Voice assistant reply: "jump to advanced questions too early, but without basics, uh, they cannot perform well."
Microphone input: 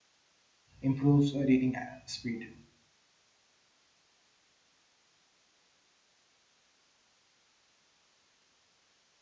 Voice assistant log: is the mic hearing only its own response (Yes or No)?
No